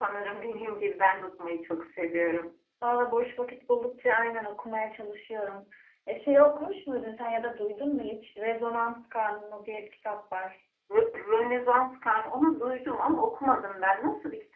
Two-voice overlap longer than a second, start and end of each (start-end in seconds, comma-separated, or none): none